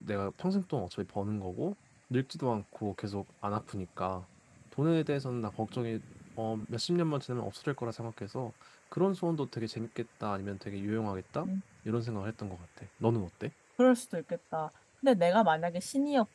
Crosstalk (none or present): none